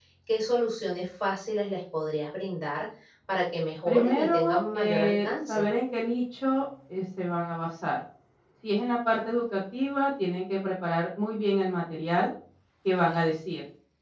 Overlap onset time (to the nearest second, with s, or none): 4 s